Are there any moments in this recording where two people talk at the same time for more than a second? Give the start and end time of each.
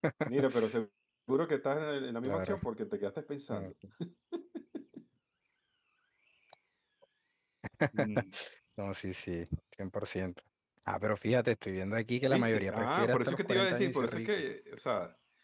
12.2-14.3

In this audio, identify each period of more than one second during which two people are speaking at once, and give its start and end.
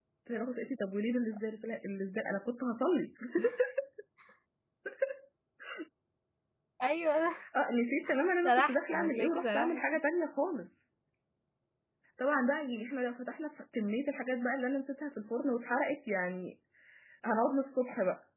8.4-9.8

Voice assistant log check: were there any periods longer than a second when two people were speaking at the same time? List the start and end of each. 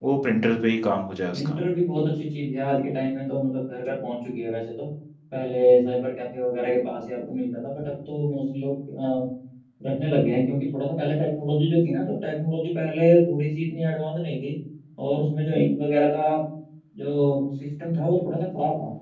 none

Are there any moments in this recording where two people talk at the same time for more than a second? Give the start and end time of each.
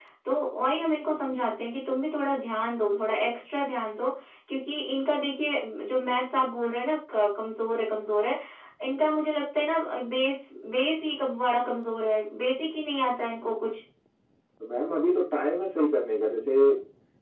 none

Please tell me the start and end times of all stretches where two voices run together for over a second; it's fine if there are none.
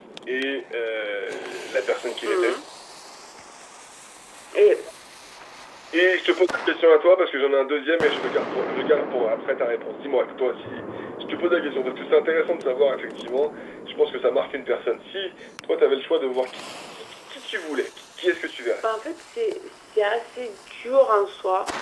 none

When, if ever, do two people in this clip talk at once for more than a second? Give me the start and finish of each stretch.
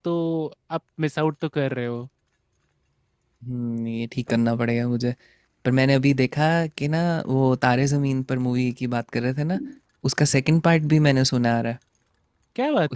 none

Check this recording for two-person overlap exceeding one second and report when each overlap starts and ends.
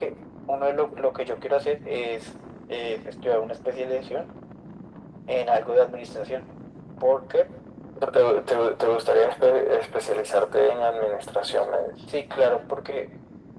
none

